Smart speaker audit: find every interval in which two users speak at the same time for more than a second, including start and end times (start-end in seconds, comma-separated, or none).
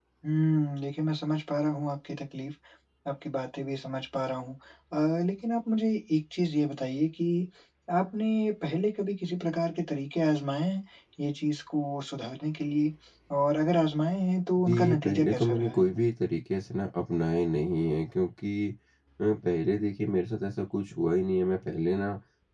14.6-15.9